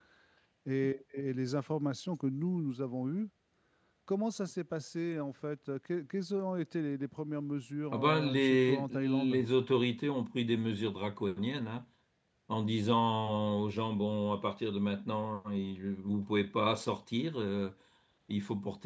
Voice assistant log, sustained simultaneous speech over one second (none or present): present